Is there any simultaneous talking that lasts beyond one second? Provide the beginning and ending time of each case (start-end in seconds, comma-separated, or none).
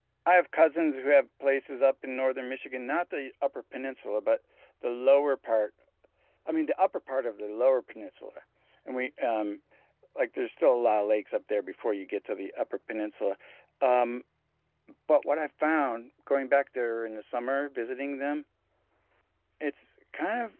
none